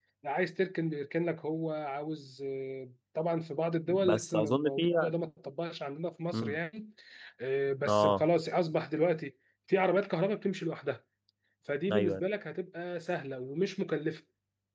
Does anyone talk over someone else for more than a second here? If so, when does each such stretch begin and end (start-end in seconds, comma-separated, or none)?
3.9-5.1